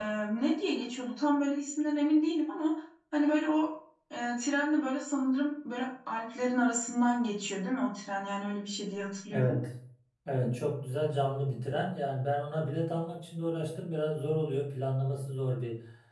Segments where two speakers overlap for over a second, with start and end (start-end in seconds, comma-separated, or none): none